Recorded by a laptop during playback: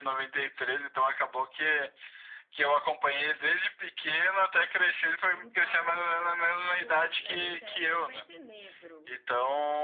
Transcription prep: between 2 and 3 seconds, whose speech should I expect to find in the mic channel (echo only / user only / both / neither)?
echo only